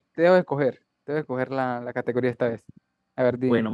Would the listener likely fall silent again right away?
No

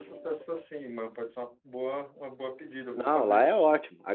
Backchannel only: No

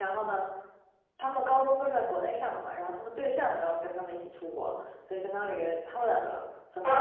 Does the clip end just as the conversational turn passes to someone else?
Yes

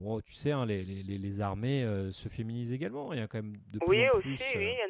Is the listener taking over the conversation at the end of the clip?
Yes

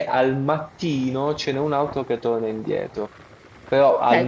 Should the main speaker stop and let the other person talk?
Yes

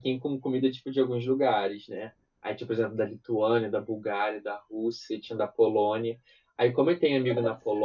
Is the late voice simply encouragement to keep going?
Yes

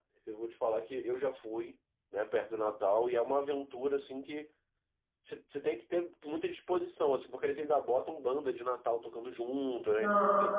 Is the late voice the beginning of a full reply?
No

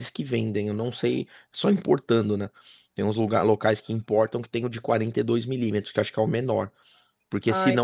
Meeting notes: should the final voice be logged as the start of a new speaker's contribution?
No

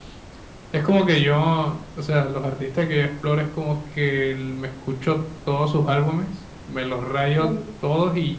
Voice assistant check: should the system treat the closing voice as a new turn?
No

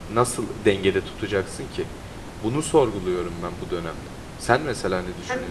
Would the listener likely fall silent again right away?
No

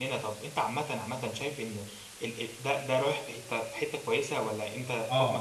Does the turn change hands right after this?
Yes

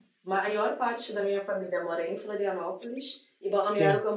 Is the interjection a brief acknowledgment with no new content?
Yes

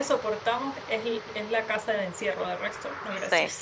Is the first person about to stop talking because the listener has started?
Yes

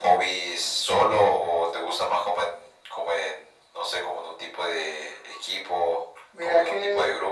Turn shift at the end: Yes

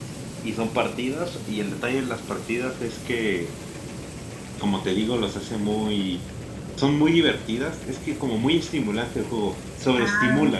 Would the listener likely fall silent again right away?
No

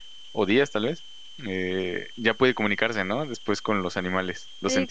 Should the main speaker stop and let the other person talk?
Yes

